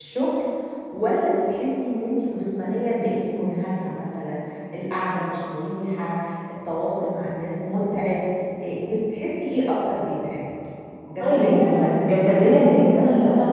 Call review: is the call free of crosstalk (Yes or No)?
No